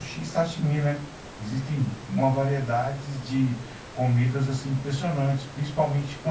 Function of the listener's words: listening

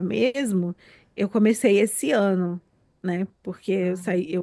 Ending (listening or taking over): listening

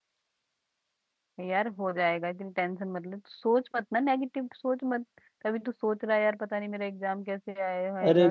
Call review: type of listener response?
taking over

